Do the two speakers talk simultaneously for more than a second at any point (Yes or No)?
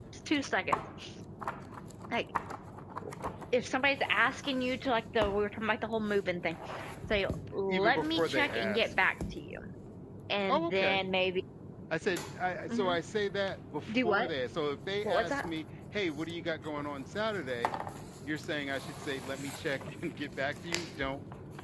Yes